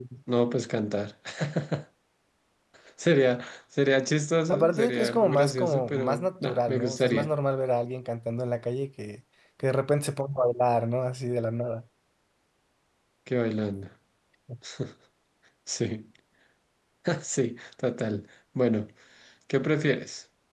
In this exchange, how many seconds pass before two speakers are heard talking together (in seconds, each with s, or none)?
4.5 s